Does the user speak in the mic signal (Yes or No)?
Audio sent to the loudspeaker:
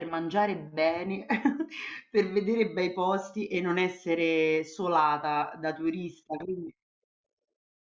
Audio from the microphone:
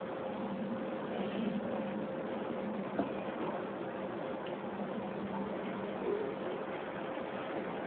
No